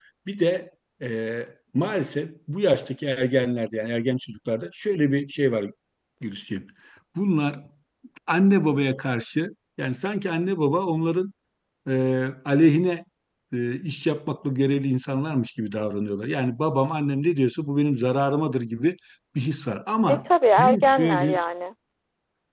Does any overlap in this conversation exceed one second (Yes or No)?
Yes